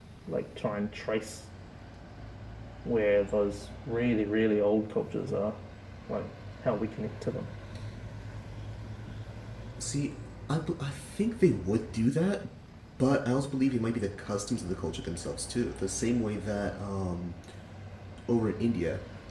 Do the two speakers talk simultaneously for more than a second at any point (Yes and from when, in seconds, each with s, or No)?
No